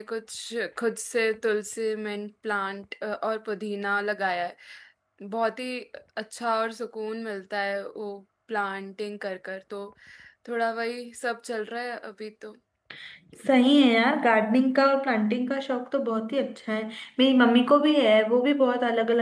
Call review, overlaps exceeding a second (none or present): none